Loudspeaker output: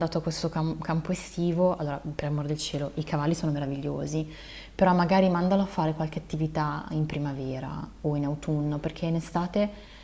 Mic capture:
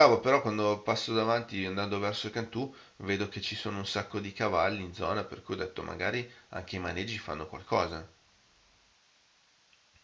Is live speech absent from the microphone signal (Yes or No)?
No